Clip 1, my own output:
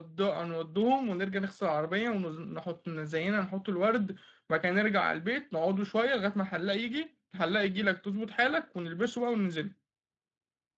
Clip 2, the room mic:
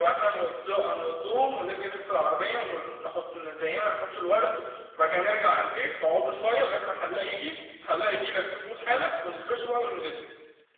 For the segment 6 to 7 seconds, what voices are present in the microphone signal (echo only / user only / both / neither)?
echo only